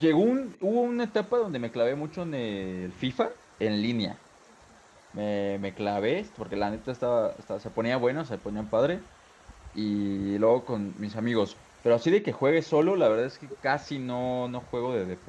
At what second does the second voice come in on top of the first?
none

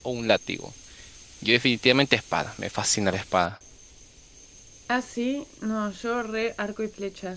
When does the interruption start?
none

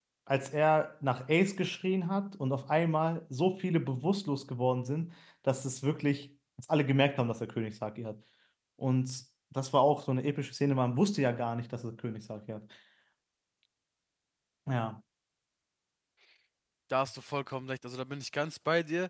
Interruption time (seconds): none

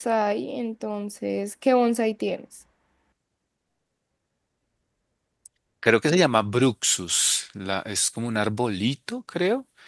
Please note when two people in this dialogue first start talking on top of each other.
none

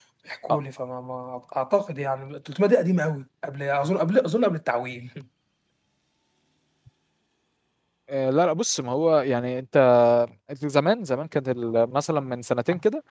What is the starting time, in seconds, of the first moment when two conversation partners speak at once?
none

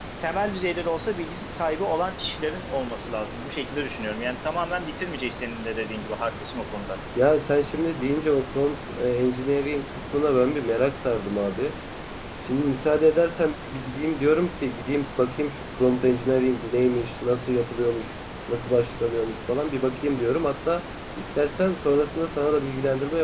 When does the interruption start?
none

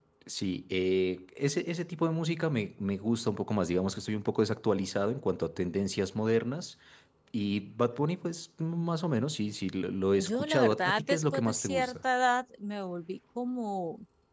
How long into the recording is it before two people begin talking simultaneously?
10 s

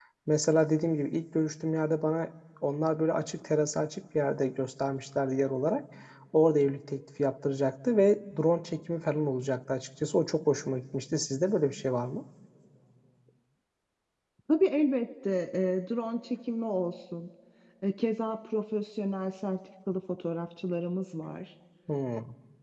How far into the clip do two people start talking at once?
none

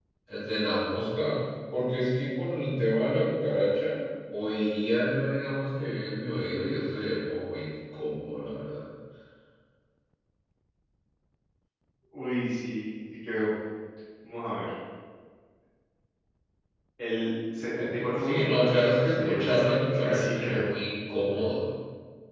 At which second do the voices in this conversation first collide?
18 s

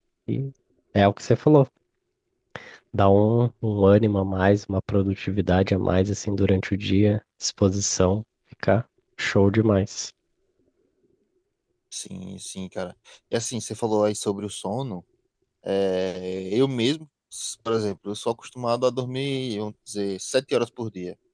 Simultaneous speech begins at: none

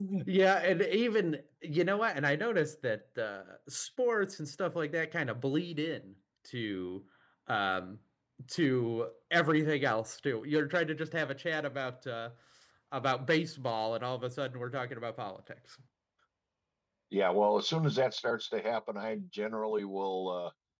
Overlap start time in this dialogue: none

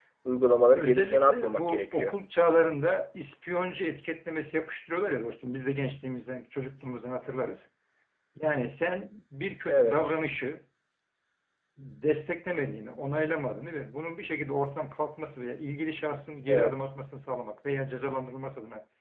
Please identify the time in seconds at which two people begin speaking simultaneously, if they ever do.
1 s

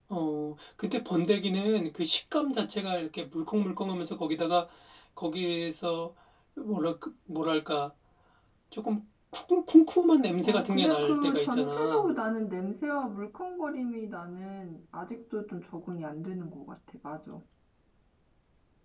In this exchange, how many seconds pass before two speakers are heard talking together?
10 s

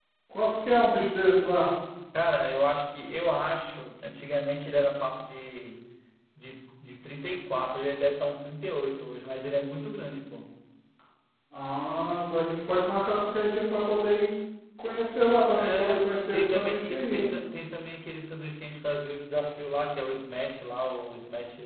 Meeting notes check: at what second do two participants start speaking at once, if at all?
16 s

